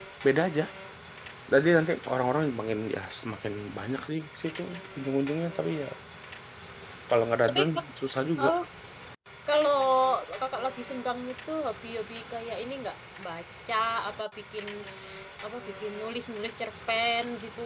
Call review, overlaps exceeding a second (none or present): none